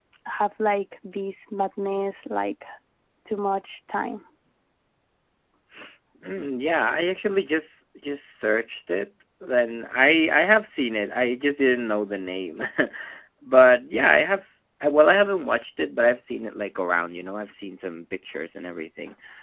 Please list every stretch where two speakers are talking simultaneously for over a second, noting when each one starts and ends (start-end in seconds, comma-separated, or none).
none